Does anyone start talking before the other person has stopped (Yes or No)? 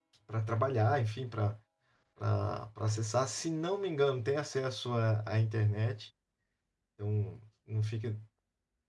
No